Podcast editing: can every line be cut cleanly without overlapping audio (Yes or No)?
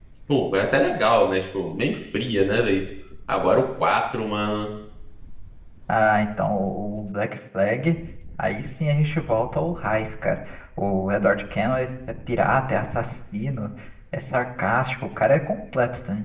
Yes